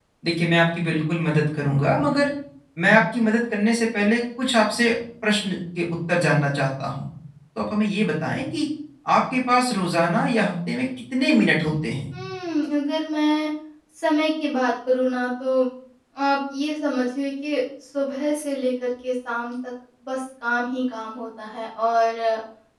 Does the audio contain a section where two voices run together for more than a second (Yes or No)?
No